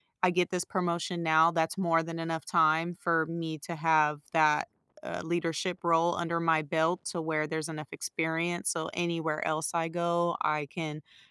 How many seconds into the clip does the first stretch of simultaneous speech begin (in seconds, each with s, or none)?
none